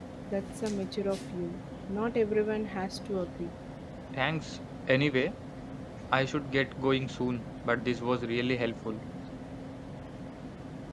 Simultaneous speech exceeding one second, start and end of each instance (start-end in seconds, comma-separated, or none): none